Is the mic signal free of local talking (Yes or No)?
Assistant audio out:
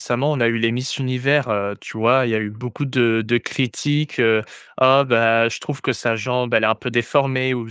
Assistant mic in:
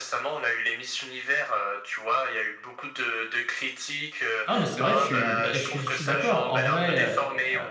No